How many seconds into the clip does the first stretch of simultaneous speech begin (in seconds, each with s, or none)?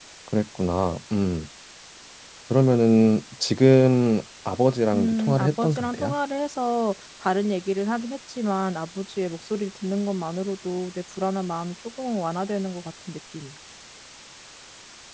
4.9 s